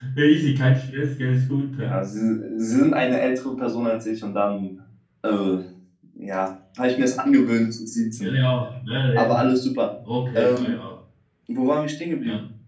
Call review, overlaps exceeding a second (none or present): none